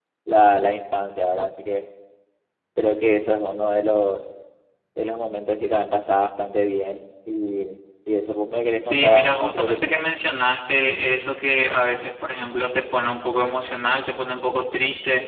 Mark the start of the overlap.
8.8 s

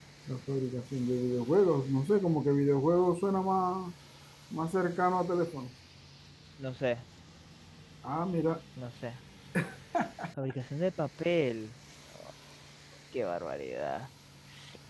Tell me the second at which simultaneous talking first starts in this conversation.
none

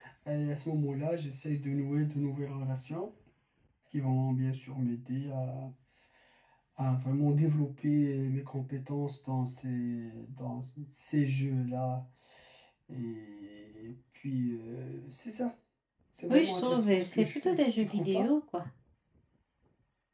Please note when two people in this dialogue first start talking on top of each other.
16.3 s

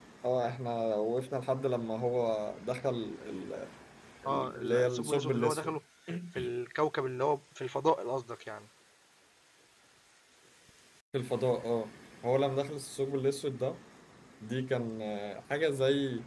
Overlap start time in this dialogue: 4.2 s

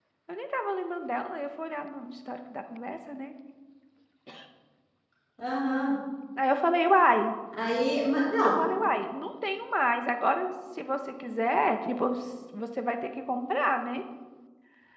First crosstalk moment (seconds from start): none

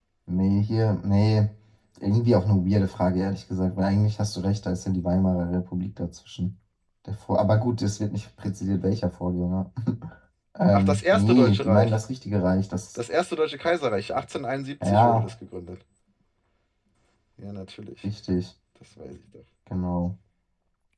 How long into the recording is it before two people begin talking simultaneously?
10.7 s

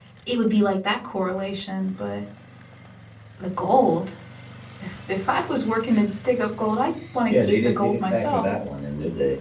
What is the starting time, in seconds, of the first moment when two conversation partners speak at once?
7.3 s

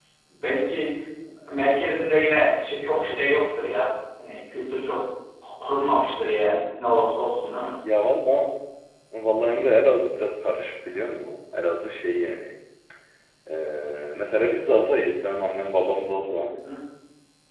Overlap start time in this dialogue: none

